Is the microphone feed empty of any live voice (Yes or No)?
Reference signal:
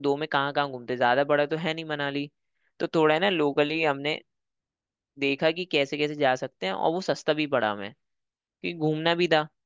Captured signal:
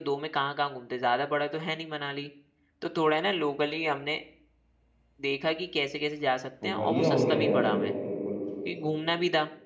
No